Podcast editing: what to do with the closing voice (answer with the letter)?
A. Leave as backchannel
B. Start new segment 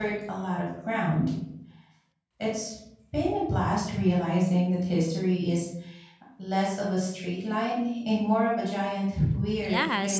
B